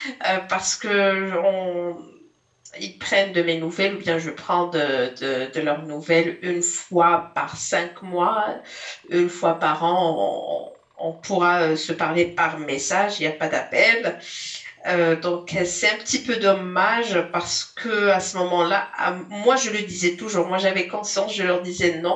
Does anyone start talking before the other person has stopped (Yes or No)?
No